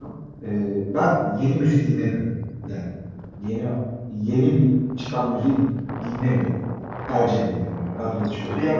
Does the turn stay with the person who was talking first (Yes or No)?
No